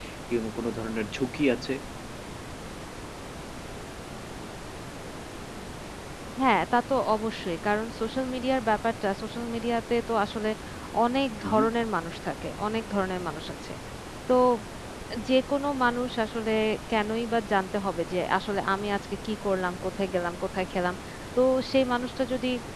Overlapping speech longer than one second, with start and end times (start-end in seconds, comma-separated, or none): none